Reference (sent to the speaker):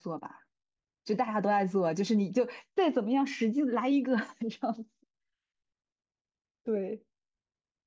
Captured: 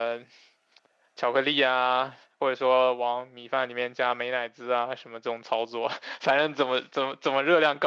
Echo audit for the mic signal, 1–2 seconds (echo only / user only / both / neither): user only